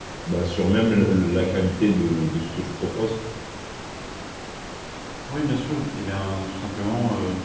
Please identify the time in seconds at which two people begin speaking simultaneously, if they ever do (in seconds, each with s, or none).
none